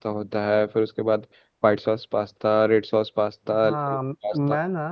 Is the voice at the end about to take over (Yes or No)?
Yes